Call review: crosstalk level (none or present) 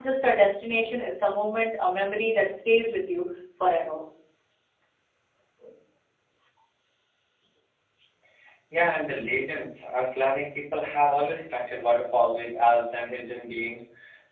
none